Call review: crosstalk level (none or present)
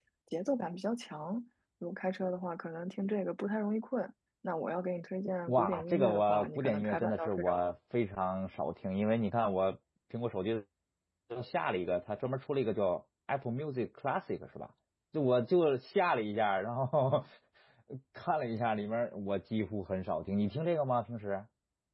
present